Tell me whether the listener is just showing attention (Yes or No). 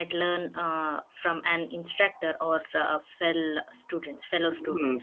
No